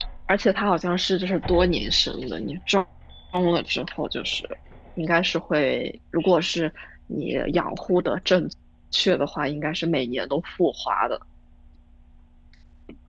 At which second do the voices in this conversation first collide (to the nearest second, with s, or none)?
none